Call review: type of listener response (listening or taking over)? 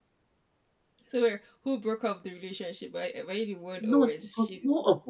taking over